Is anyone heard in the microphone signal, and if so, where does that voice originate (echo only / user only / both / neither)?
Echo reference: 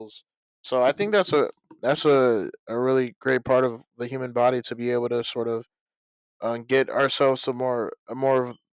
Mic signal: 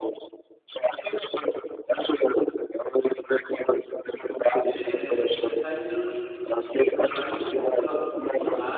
both